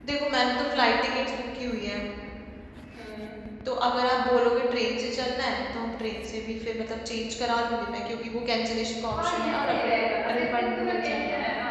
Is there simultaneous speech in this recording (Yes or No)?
Yes